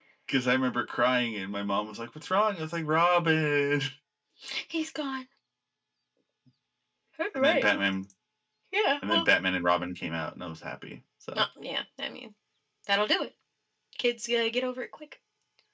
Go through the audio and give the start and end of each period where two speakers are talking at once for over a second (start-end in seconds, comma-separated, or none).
none